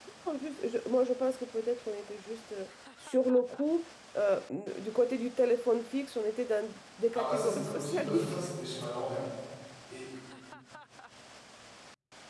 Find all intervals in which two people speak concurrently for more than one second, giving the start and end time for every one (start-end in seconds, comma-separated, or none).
7.2-8.4